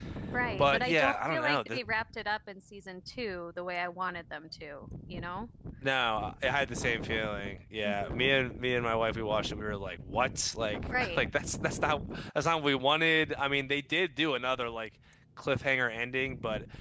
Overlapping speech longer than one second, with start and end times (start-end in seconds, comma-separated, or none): 0.6-1.8